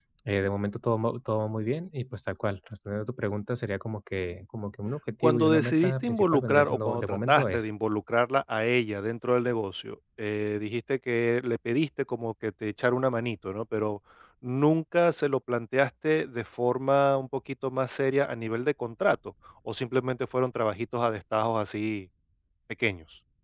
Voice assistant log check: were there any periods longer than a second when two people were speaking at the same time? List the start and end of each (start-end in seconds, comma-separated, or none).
5.2-7.7